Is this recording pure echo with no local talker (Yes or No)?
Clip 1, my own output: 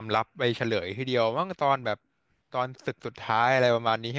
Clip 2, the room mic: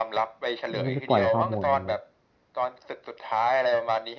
No